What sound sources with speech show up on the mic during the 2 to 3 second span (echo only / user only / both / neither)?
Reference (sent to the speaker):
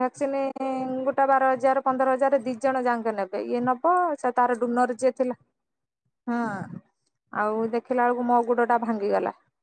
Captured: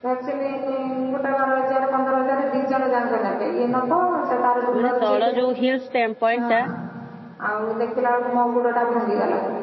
echo only